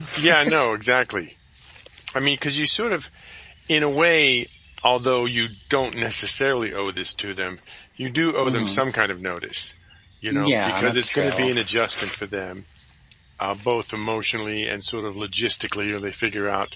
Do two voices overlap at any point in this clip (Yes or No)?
Yes